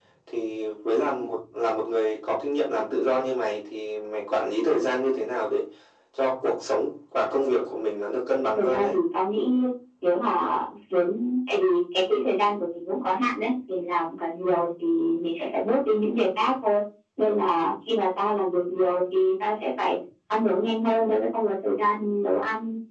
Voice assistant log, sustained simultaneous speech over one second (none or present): none